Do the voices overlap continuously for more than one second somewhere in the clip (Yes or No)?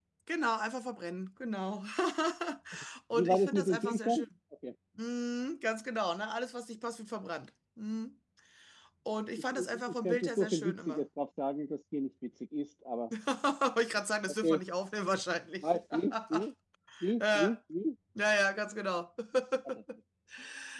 Yes